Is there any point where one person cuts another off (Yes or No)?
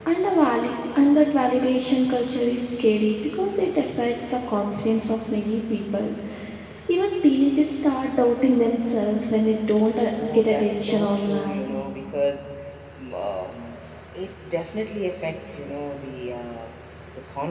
Yes